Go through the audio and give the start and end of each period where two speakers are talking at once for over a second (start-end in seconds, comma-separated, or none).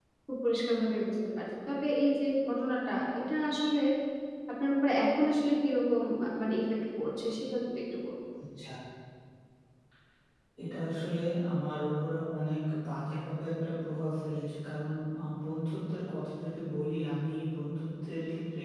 none